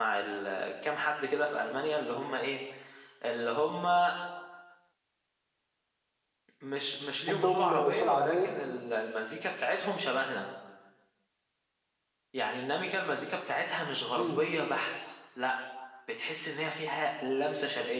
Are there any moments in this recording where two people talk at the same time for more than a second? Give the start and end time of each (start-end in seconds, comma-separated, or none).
7.3-8.5